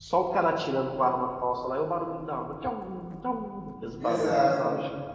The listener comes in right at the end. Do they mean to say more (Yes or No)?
Yes